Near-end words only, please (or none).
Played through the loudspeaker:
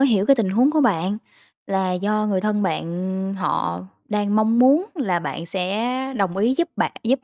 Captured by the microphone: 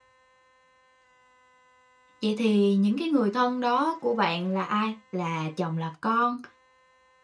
vậy thì những cái người thân đó của bạn là ai? Là chồng, là con?